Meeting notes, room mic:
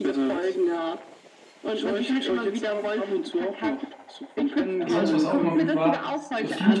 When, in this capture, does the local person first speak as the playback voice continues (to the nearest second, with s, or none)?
5 s